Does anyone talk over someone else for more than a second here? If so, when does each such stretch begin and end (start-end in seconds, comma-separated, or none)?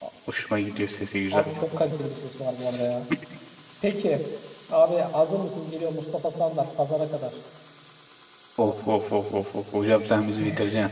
none